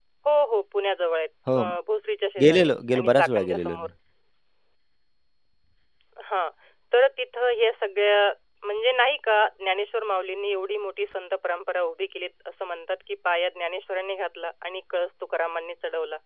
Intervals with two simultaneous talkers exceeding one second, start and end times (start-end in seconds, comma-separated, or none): 2.4-3.9